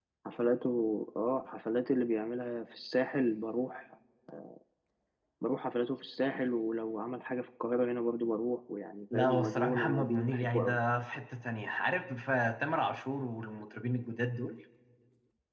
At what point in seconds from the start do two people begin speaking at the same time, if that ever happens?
9.1 s

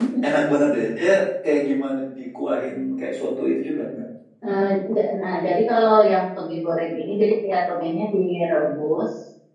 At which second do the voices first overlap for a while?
none

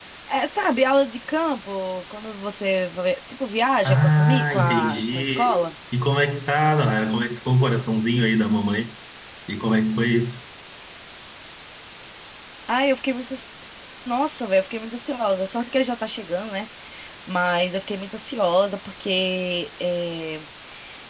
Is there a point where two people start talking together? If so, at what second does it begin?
3.9 s

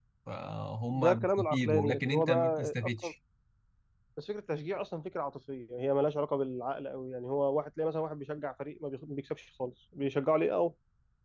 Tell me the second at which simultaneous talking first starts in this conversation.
0.9 s

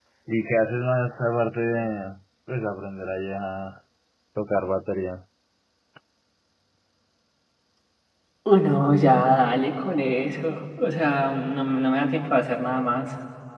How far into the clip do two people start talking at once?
none

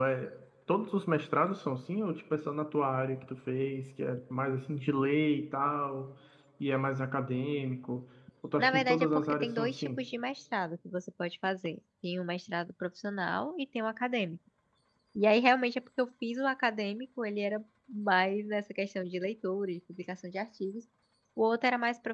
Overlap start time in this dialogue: 8.6 s

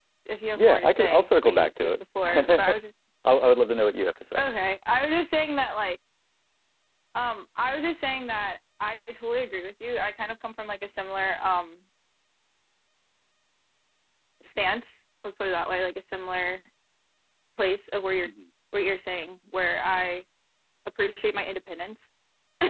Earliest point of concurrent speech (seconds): 0.6 s

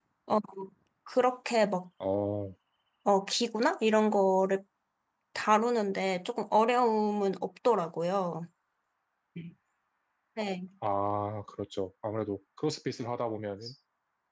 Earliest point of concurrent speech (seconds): none

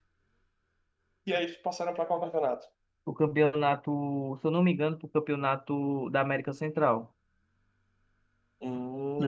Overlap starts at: none

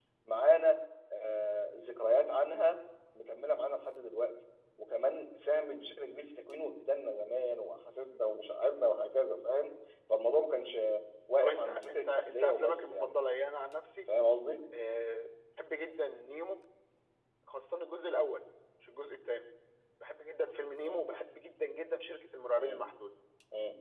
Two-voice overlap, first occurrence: 11.4 s

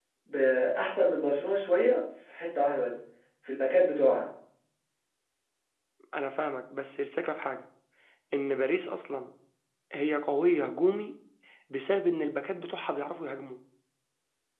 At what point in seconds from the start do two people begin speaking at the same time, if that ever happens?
none

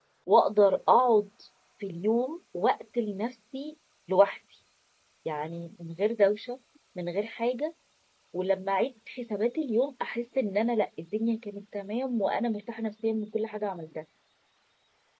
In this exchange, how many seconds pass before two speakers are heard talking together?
none

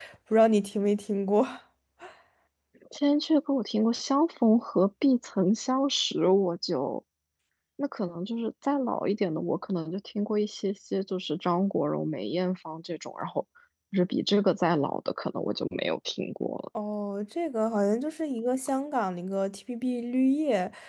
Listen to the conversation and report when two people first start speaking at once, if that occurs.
none

